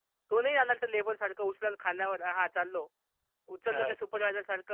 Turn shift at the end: No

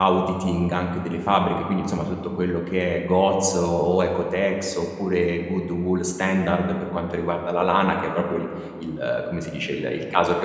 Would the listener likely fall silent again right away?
Yes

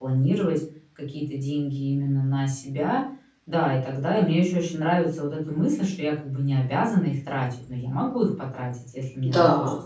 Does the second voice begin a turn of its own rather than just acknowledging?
Yes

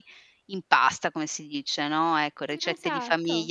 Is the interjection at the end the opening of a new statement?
No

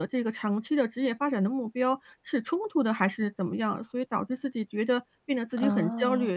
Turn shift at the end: No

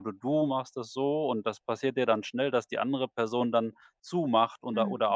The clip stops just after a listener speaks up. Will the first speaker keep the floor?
Yes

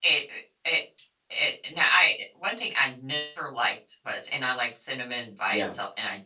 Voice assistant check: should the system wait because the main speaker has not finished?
Yes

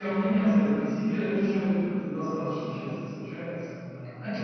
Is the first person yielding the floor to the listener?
No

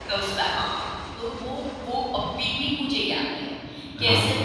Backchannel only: Yes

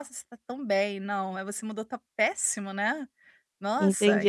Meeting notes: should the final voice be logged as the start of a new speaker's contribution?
Yes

